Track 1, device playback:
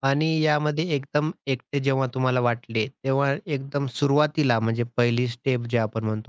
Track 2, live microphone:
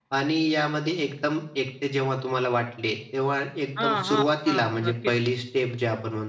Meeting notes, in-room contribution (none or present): present